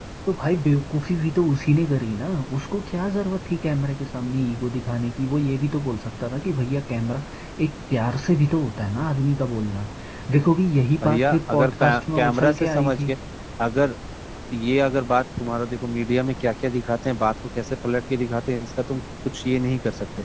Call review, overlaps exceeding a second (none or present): present